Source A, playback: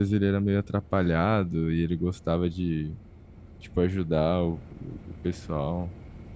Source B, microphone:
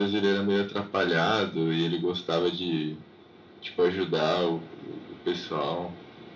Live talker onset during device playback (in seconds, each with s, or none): none